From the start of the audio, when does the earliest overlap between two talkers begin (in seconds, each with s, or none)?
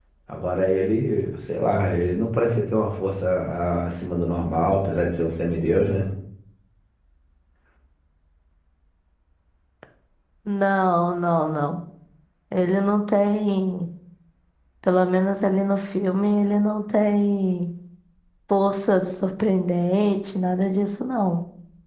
none